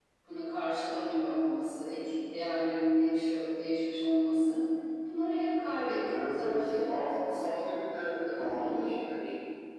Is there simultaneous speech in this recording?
Yes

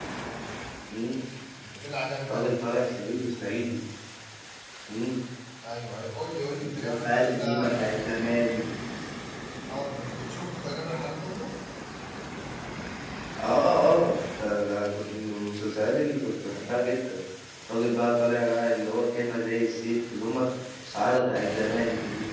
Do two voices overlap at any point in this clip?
Yes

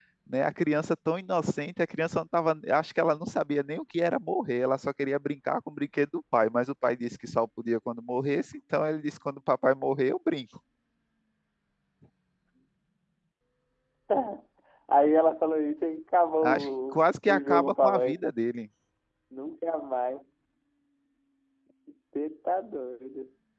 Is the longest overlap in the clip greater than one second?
Yes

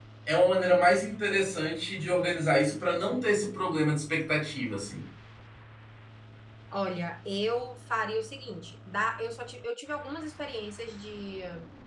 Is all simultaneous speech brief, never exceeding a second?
Yes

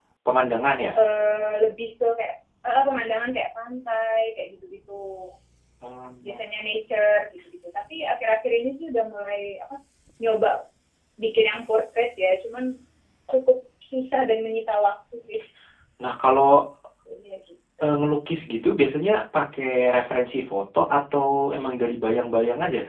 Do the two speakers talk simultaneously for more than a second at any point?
No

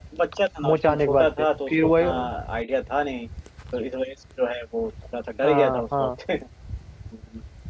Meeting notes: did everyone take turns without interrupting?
No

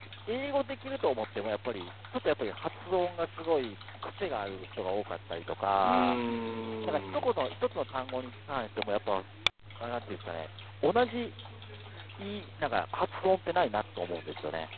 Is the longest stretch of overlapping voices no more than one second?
Yes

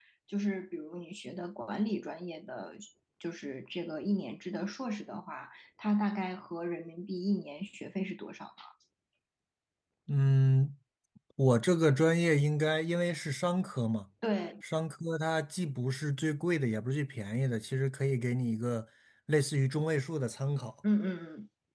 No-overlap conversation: Yes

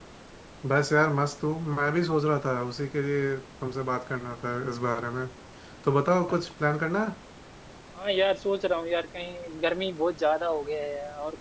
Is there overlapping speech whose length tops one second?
No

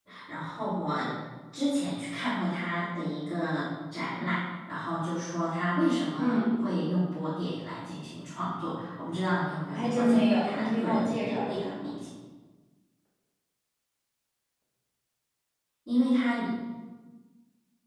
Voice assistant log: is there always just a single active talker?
No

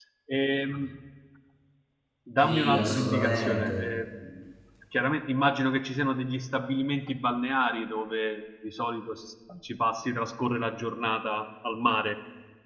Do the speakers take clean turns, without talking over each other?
No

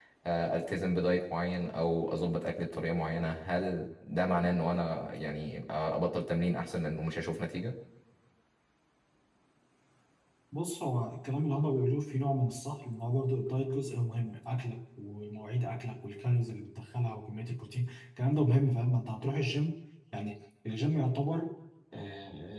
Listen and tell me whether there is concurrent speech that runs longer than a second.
No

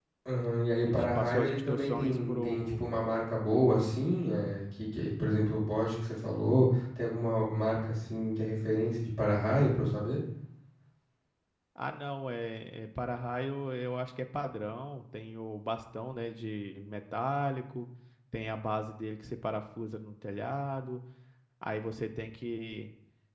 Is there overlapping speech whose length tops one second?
Yes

